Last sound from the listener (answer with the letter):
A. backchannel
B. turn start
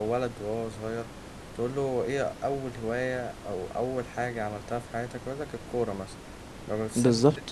A